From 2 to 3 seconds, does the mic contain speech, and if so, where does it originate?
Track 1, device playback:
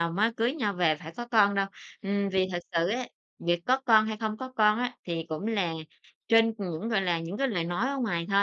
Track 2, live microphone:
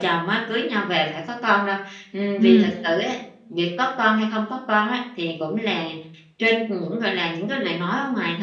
both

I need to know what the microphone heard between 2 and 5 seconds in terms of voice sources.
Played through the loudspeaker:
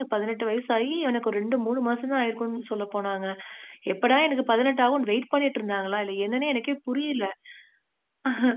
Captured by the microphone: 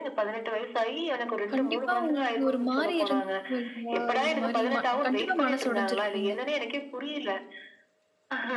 both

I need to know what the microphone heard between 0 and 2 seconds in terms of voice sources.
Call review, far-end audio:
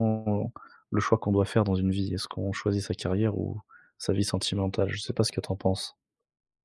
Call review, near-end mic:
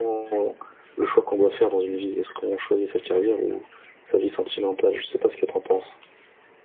echo only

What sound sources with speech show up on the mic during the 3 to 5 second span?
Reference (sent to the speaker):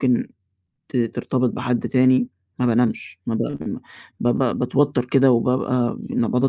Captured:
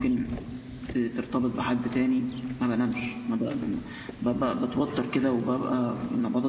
echo only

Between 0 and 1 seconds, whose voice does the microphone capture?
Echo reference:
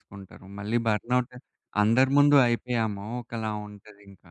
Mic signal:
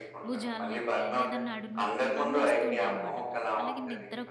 both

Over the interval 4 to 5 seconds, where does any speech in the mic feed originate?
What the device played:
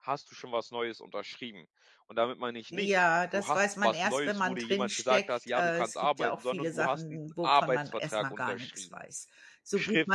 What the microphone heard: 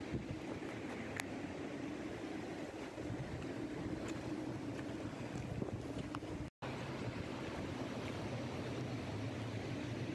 neither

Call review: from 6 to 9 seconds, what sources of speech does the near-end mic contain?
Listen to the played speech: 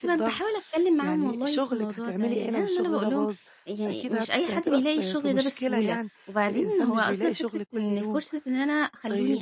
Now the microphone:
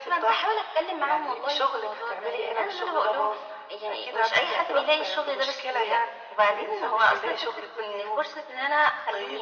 echo only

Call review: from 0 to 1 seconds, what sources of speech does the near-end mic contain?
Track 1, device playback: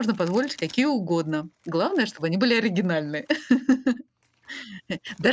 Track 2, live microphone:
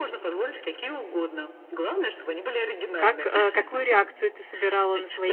echo only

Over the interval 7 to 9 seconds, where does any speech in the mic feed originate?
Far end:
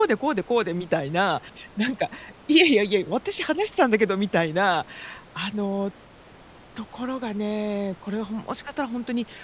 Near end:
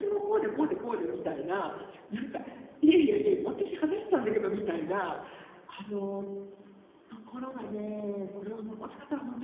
echo only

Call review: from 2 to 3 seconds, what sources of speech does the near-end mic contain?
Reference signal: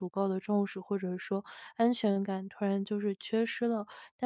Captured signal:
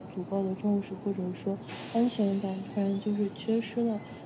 echo only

